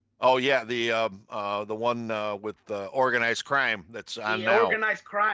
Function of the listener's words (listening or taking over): taking over